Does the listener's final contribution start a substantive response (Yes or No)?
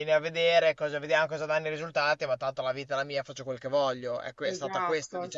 Yes